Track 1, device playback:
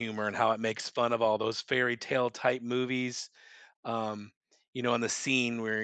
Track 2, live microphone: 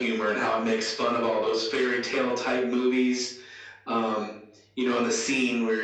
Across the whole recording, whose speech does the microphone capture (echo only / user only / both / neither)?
echo only